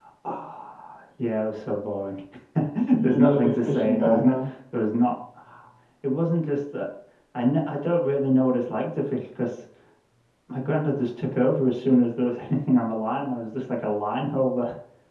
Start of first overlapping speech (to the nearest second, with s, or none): 3 s